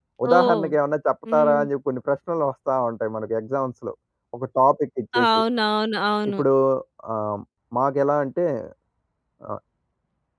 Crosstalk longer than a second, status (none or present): none